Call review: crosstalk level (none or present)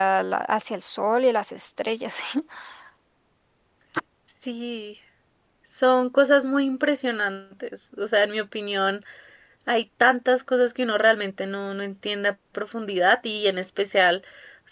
none